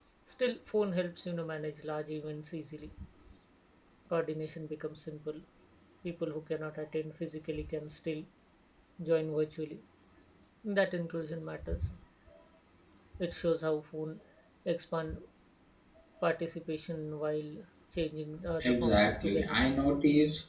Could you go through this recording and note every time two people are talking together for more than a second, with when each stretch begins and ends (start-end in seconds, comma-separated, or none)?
18.6-19.9